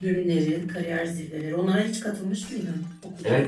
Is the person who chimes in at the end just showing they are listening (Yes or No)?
No